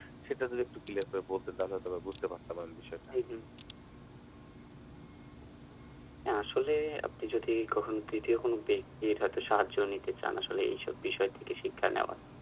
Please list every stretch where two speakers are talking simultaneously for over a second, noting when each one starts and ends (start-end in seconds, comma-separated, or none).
none